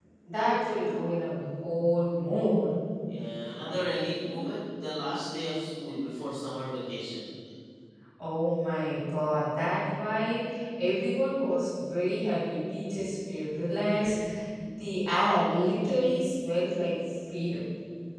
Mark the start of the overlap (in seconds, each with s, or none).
none